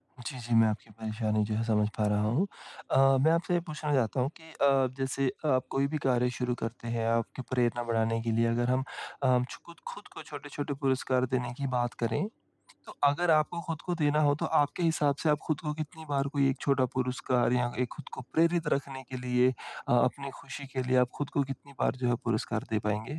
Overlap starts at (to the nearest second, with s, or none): none